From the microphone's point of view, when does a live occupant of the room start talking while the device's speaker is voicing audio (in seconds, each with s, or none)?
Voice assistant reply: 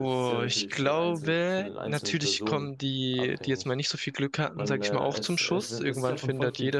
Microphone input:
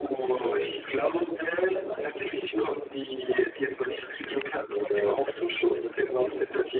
none